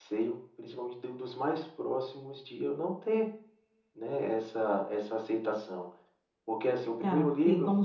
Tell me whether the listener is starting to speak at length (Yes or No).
Yes